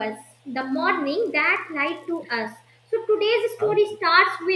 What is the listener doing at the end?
listening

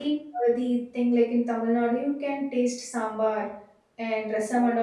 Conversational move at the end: listening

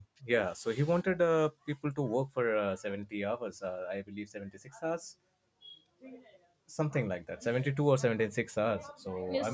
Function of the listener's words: taking over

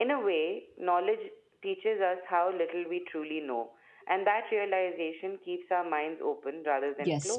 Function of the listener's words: taking over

